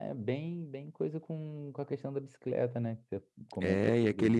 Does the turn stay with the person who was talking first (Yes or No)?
No